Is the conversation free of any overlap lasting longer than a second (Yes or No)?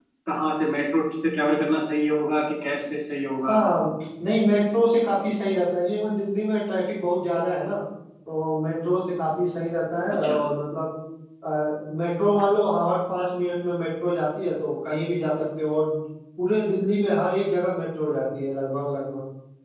Yes